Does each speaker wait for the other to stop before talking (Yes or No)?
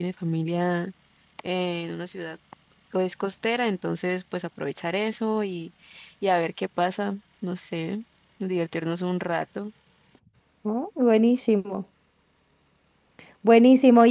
Yes